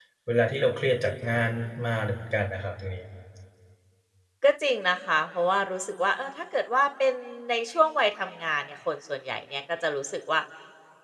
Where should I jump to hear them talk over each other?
none

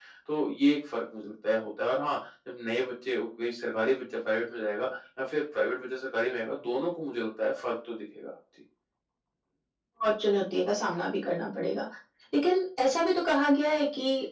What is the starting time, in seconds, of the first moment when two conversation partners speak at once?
none

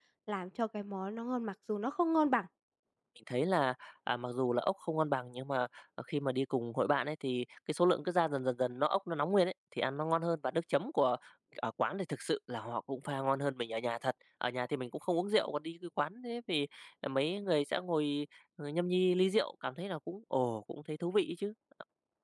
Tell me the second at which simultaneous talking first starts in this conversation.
none

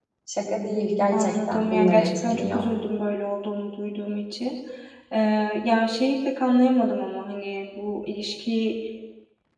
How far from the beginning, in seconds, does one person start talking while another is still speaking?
1.1 s

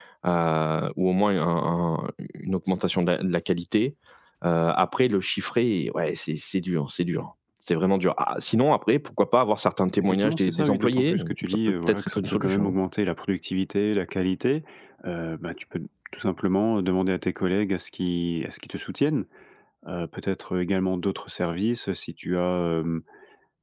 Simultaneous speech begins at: 10.0 s

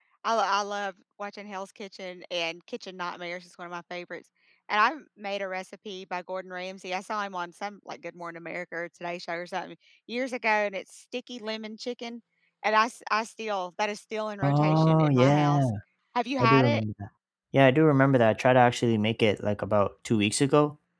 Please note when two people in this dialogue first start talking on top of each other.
14.4 s

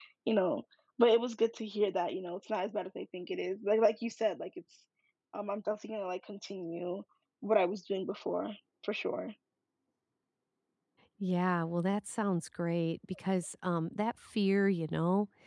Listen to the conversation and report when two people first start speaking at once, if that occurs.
none

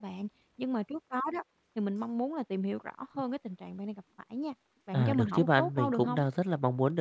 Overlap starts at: 4.9 s

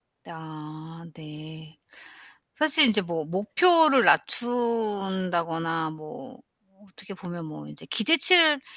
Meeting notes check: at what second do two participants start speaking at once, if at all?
none

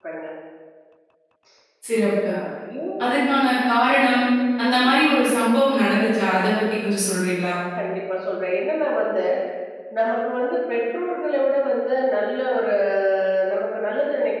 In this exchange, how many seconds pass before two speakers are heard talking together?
none

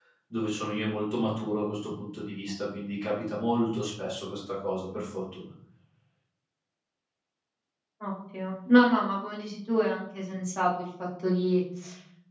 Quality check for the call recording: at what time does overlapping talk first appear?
none

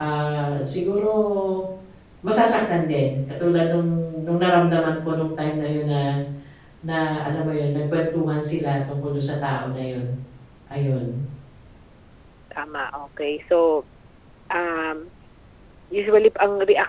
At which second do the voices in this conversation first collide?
none

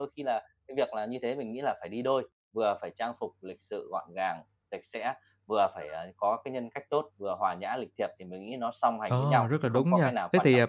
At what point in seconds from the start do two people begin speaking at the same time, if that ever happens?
9.1 s

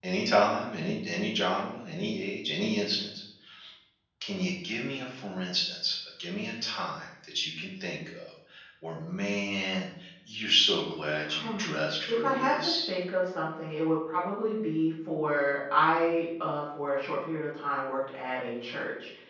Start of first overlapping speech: 11.3 s

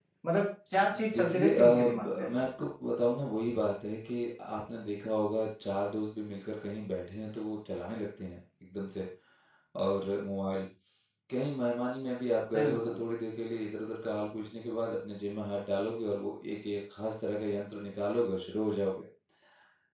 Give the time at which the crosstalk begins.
1.1 s

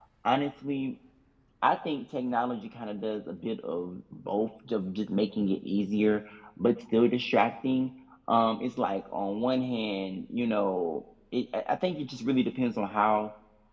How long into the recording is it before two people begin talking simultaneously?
none

